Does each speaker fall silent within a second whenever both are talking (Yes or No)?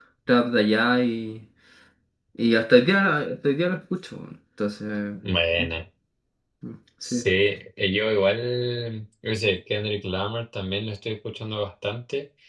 Yes